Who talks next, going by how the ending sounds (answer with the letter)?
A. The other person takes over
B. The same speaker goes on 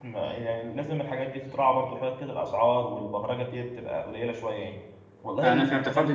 A